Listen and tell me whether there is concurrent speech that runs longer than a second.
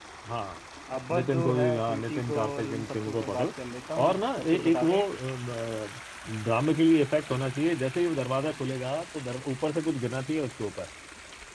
Yes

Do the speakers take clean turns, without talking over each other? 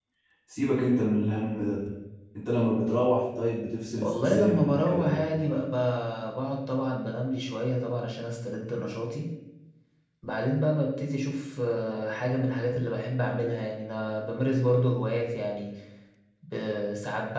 No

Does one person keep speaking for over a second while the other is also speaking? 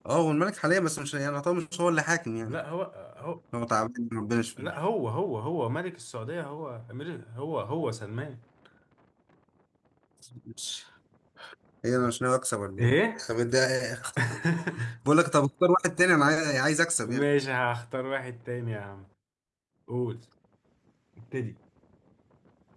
No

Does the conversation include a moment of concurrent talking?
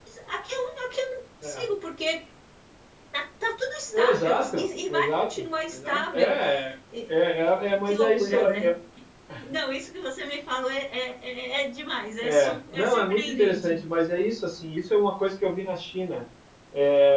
Yes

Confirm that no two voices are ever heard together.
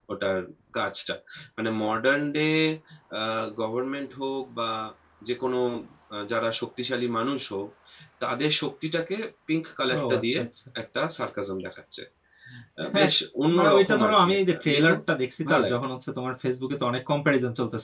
No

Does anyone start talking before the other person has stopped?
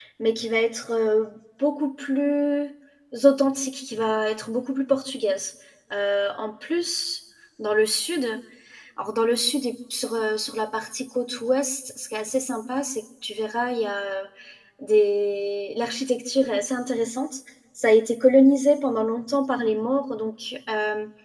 No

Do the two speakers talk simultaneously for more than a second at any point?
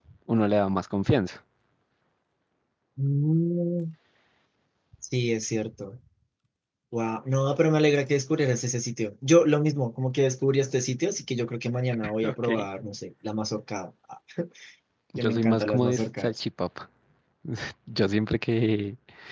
Yes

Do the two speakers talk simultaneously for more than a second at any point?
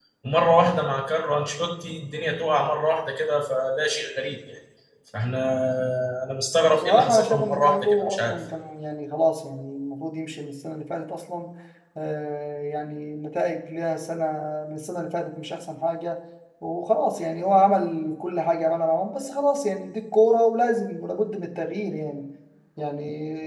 Yes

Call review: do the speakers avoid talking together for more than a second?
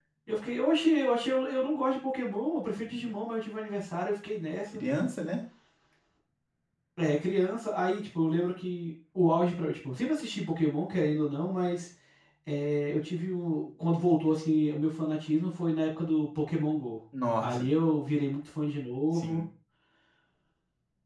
Yes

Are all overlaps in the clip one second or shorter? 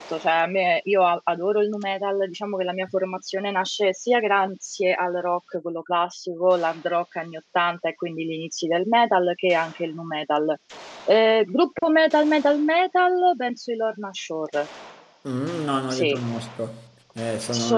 Yes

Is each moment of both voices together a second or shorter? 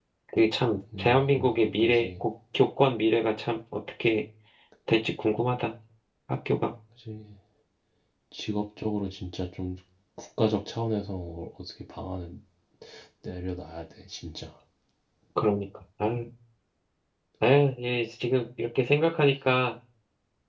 No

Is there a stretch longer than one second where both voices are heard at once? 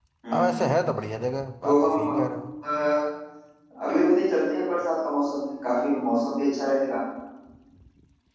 No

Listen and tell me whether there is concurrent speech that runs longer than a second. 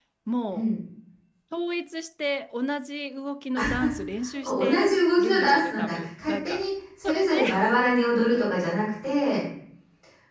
Yes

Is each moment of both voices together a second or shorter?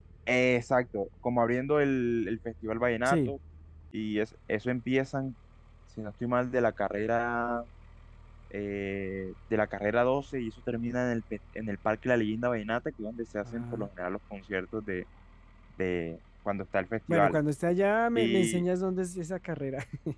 Yes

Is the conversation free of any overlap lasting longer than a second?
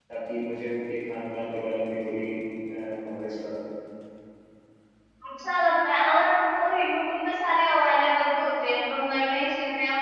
Yes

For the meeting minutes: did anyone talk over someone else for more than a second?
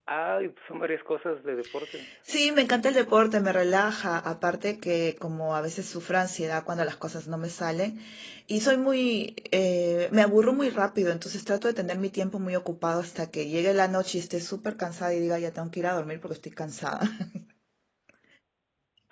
No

